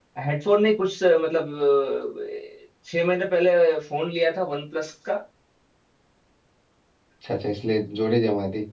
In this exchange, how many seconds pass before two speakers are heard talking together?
none

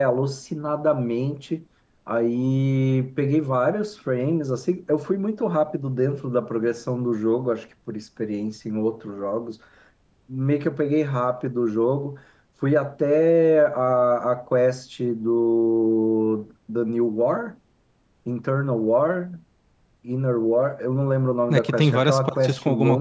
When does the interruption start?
21.5 s

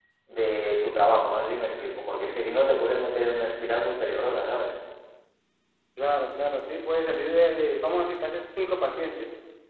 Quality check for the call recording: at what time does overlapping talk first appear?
none

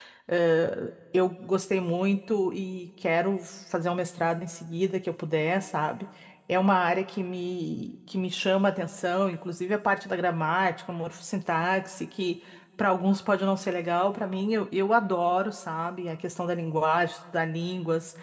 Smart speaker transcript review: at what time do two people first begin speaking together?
none

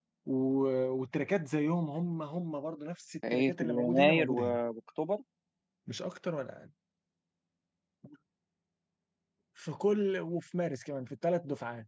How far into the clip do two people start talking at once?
3.2 s

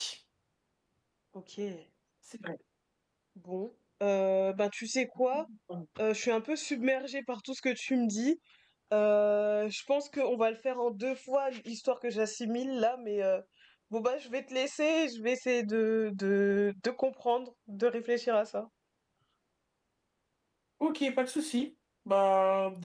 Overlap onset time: none

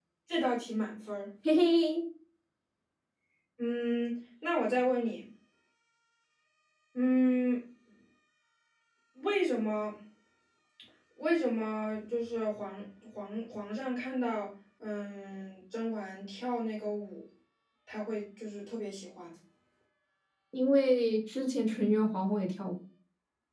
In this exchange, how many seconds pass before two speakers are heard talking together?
none

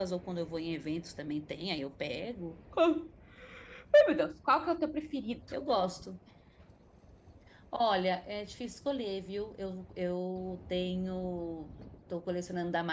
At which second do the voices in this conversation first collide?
none

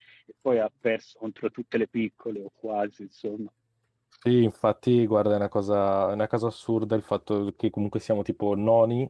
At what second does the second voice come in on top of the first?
none

